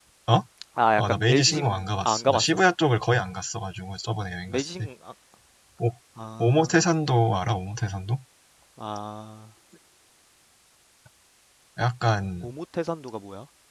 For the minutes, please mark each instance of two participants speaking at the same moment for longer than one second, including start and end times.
1.0-2.6

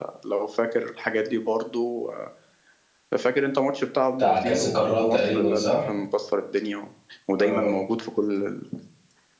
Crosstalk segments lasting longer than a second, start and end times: 4.2-5.8

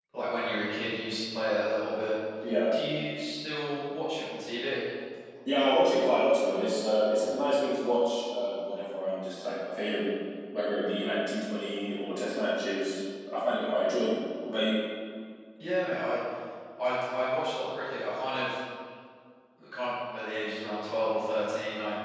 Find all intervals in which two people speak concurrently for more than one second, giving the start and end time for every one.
none

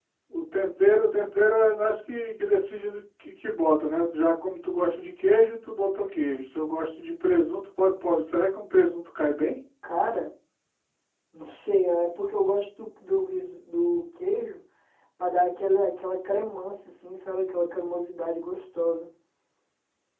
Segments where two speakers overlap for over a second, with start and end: none

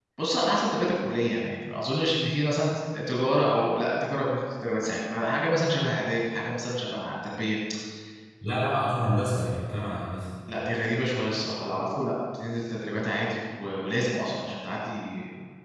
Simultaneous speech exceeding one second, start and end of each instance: none

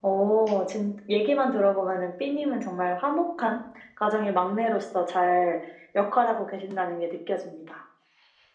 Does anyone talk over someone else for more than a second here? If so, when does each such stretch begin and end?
none

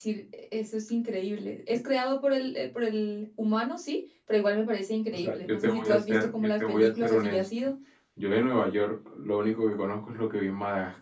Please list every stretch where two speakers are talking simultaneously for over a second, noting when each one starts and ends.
5.1-7.5

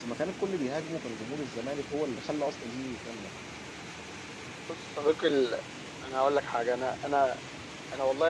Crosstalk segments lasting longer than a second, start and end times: none

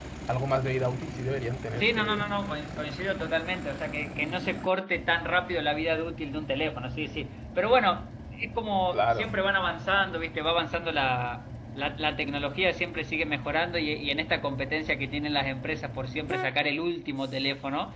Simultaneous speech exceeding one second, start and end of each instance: none

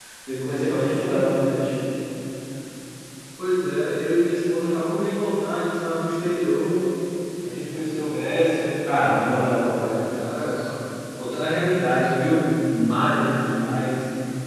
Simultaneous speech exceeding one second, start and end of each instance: none

